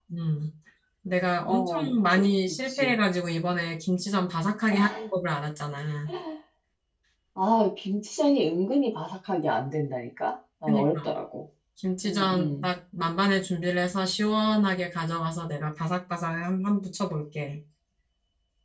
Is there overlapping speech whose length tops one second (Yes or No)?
Yes